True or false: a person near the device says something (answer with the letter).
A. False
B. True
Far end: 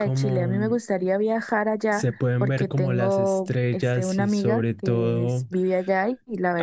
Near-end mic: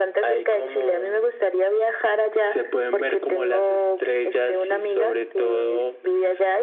A